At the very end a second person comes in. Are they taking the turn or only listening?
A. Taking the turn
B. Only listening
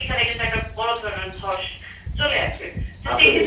B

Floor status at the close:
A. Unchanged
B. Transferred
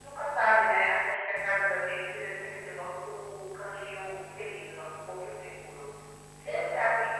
A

